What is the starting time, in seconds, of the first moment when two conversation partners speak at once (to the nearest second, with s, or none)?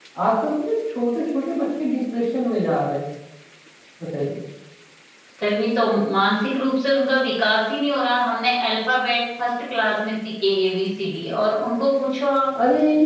none